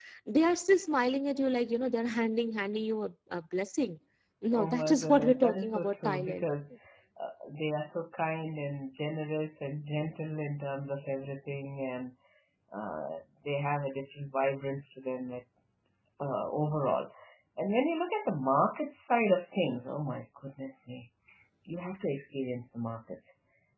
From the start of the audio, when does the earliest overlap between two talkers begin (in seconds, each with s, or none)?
4.5 s